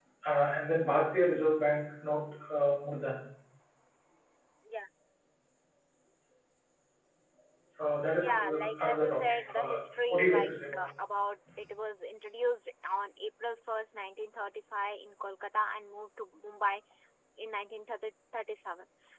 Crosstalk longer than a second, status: present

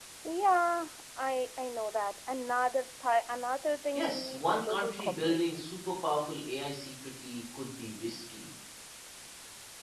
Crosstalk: present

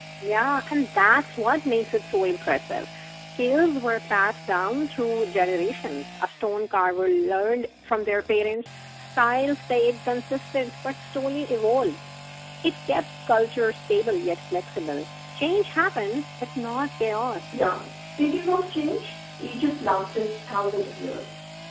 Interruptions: none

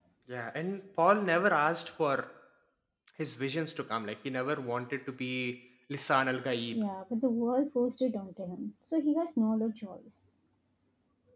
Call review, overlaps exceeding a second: none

